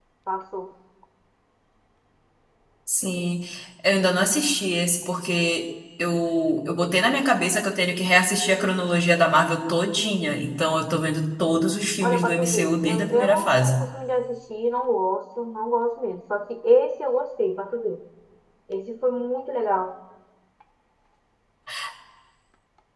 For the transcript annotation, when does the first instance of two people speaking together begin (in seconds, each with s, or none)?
12.0 s